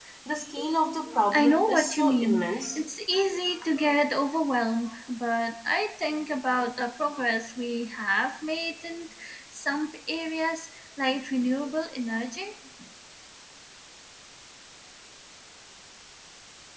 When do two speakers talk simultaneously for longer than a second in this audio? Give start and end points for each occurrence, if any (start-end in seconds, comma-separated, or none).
1.3-2.8